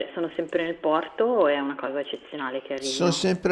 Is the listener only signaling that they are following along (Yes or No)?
No